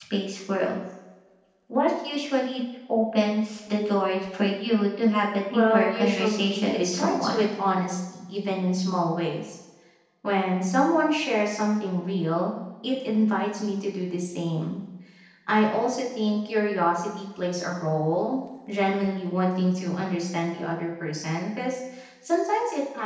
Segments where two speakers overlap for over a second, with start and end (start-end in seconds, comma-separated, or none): 5.5-7.5